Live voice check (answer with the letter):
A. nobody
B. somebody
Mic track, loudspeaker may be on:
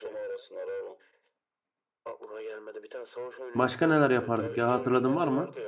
B